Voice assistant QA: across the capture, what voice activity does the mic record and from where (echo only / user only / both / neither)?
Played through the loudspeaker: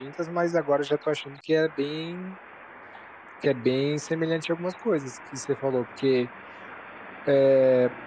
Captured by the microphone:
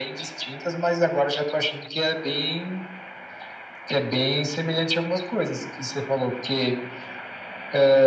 echo only